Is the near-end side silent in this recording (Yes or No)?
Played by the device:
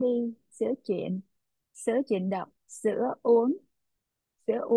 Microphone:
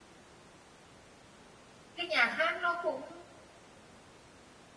No